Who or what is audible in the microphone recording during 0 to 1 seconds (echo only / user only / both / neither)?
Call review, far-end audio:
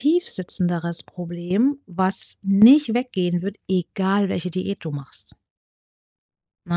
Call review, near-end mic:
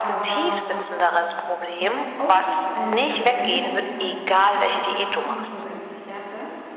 both